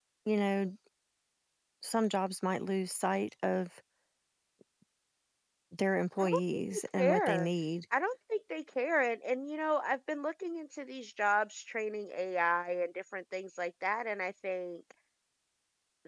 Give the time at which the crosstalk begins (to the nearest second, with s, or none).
6 s